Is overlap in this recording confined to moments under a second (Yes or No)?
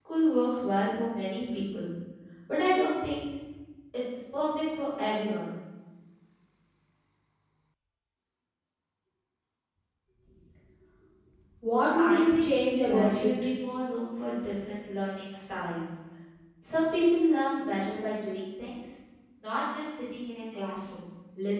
No